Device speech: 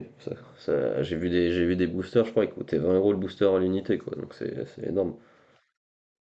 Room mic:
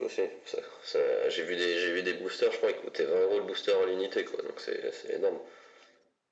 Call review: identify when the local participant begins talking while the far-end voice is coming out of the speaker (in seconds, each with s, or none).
none